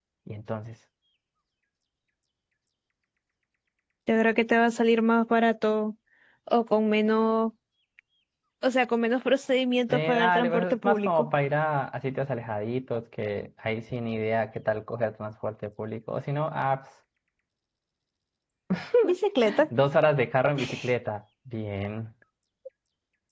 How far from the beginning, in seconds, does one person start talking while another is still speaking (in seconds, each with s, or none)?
9.9 s